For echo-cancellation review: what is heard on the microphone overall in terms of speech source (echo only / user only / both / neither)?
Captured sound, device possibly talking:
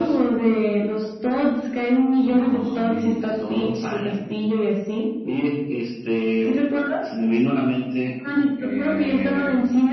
both